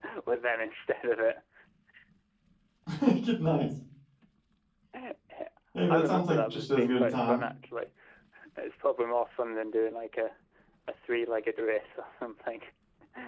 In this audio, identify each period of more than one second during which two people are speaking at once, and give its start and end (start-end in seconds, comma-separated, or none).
5.9-7.4